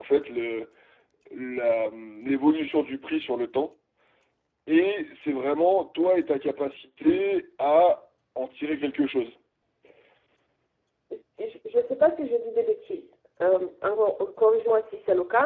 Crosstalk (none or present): none